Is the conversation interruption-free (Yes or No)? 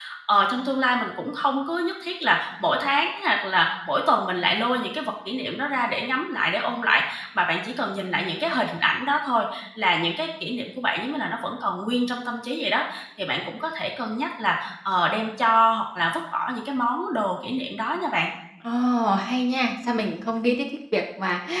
Yes